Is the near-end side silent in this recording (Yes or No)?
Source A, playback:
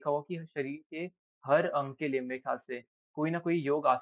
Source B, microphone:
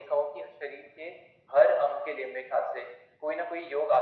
Yes